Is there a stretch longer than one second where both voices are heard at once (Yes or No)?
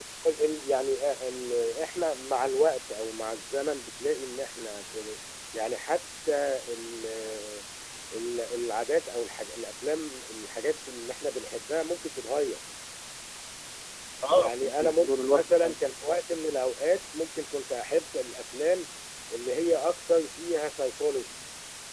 Yes